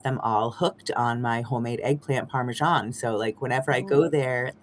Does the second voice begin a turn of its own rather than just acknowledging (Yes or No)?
No